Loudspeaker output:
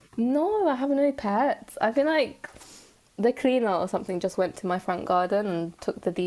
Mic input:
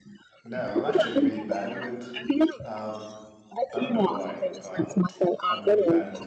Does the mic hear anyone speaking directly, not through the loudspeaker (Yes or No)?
Yes